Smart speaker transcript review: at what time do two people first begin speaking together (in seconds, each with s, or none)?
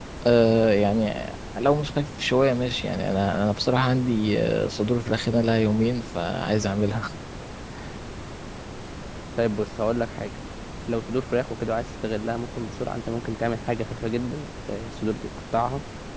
none